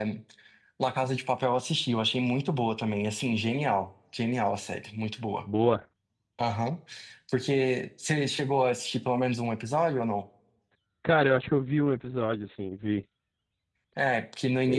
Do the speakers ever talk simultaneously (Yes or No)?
No